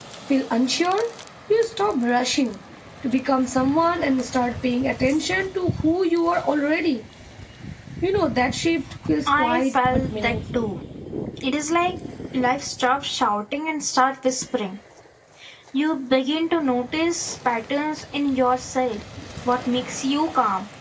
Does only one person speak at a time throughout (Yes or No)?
No